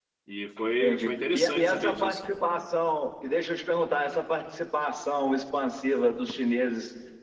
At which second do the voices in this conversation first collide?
0.8 s

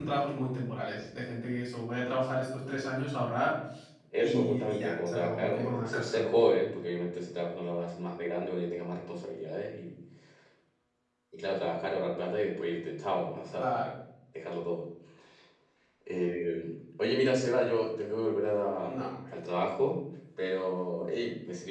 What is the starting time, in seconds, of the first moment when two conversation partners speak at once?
4.2 s

